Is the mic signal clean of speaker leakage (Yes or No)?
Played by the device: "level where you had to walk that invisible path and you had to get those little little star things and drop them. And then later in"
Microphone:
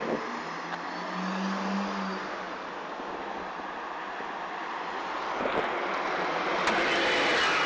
Yes